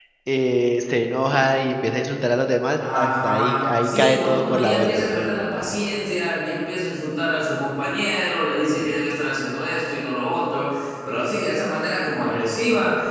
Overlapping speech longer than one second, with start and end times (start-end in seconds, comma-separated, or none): 2.9-5.5